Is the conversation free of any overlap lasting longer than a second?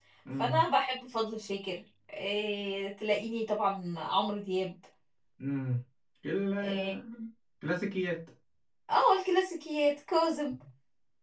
Yes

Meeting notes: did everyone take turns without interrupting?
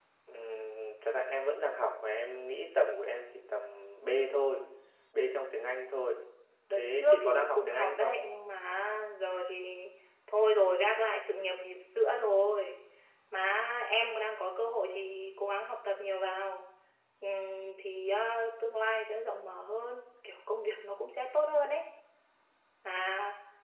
No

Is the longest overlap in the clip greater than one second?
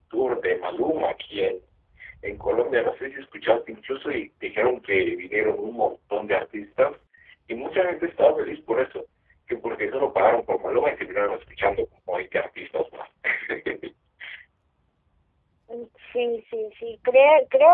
No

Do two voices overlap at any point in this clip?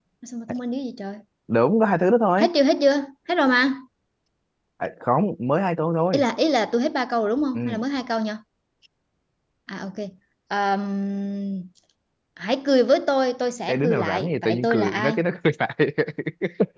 Yes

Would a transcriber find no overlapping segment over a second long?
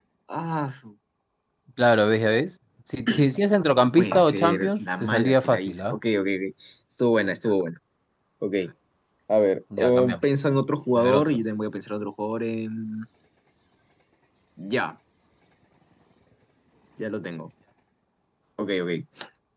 No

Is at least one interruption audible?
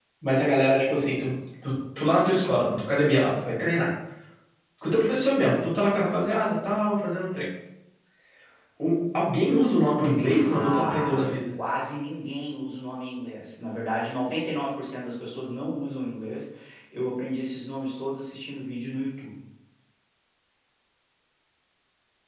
Yes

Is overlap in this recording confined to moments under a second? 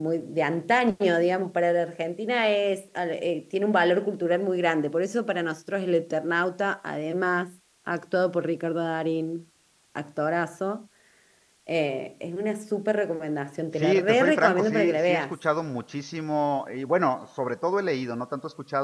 No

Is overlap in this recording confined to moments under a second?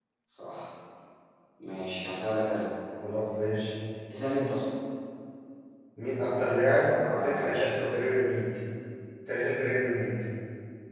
No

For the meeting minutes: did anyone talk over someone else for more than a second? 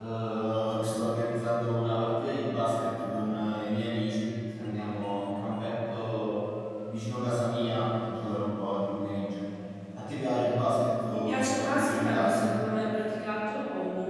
Yes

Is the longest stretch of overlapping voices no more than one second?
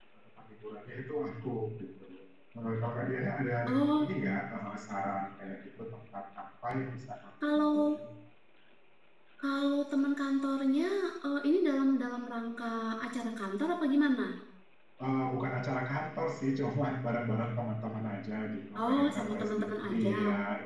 No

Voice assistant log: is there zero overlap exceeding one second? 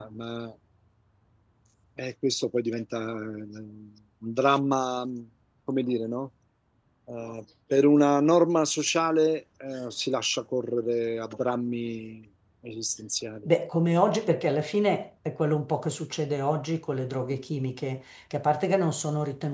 Yes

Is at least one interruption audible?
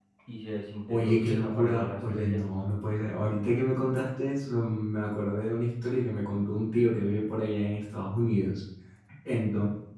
Yes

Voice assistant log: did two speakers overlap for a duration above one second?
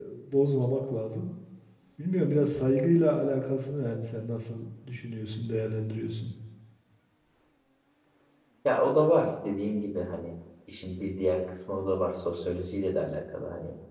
No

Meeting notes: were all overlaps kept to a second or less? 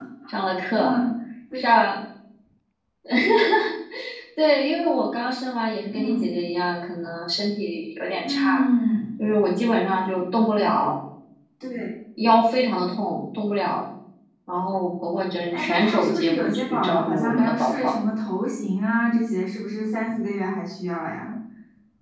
No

